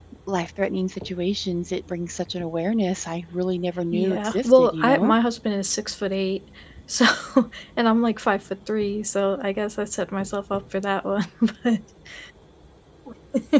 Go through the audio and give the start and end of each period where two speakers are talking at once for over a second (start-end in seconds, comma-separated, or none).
3.9-5.2